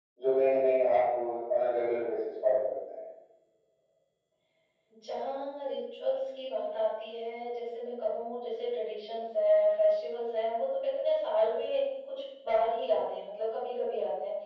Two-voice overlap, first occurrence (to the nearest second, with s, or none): none